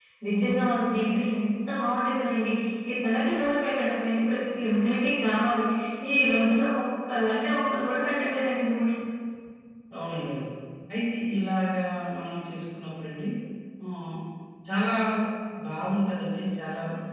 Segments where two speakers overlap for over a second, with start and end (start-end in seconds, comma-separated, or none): none